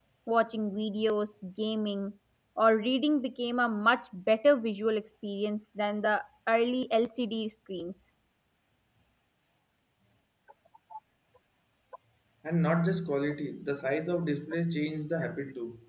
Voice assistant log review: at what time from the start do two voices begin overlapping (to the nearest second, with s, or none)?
none